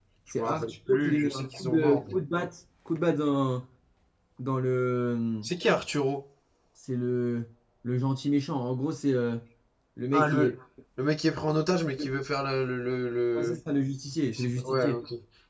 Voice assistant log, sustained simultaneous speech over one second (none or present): present